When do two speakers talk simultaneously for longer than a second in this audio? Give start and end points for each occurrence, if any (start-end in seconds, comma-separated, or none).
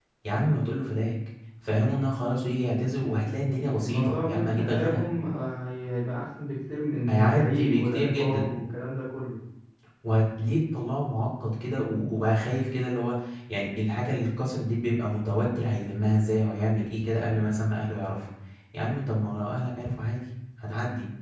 3.8-5.0, 7.1-8.5